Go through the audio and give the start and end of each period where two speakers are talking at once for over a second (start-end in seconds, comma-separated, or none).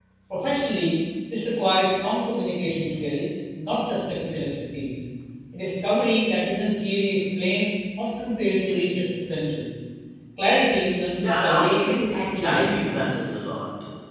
11.2-12.9